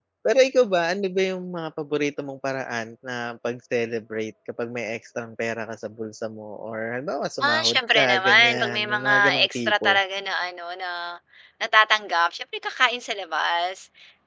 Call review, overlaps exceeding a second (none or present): present